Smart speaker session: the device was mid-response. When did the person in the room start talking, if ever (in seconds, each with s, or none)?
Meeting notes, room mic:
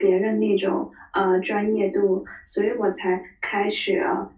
none